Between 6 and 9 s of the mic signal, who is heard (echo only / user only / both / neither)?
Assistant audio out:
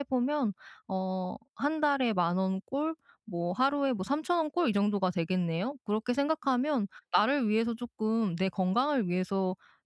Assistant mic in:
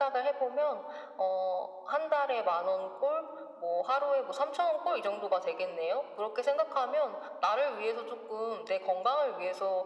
echo only